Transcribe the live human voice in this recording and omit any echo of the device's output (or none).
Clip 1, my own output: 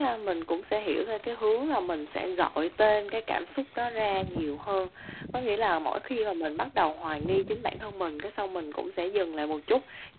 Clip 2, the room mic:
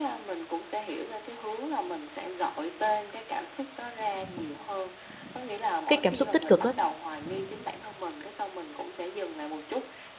cái cảm xúc tích cực đó,